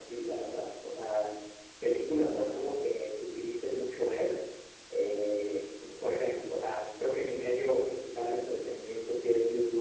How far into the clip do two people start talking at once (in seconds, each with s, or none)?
none